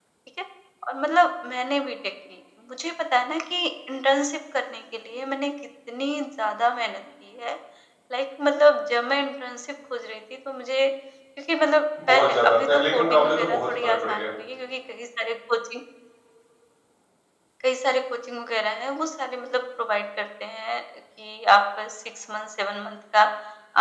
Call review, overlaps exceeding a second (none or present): present